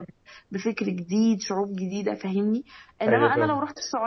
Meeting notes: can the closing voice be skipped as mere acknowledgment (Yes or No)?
Yes